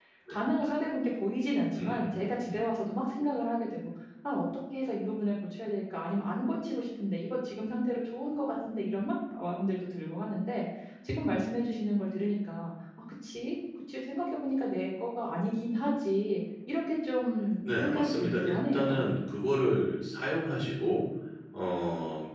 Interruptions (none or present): present